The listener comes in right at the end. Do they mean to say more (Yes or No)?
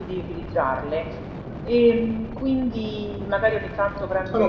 No